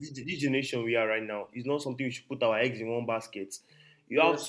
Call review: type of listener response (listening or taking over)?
listening